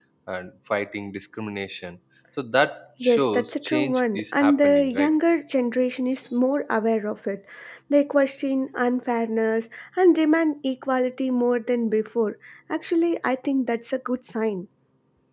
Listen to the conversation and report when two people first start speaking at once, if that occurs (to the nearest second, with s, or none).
3 s